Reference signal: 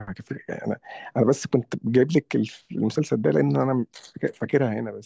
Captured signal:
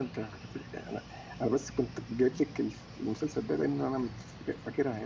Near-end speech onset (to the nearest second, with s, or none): none